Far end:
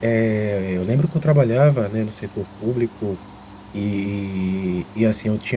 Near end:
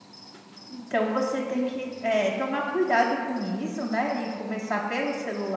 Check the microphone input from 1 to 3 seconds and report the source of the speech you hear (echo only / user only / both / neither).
user only